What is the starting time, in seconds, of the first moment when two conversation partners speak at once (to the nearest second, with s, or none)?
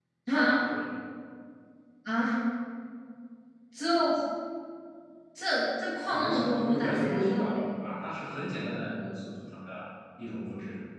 6 s